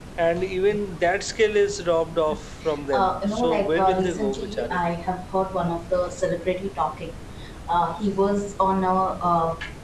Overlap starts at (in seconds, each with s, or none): 2.9 s